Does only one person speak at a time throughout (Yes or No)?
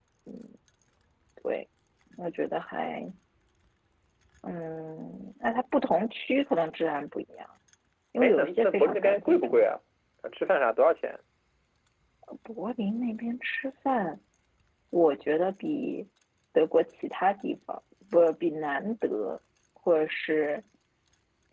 No